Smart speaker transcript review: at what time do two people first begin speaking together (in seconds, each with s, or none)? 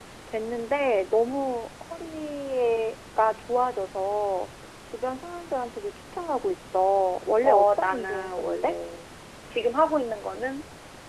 7.4 s